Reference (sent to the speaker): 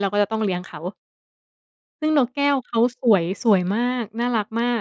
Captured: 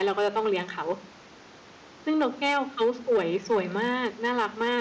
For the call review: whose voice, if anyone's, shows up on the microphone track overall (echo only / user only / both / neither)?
echo only